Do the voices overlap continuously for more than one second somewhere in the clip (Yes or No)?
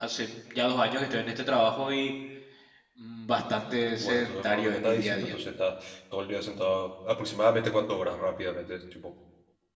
Yes